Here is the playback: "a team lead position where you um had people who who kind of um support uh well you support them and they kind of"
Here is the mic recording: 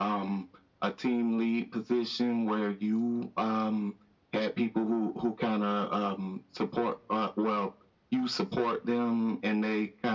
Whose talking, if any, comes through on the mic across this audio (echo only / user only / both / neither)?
echo only